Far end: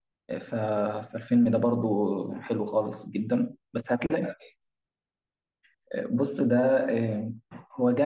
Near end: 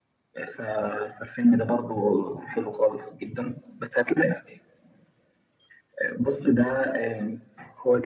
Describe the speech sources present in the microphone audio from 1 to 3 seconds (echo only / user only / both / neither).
echo only